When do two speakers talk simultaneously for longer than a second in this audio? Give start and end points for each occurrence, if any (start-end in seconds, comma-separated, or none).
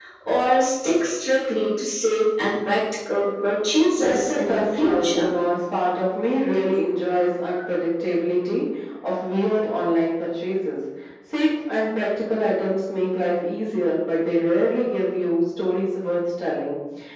4.0-5.4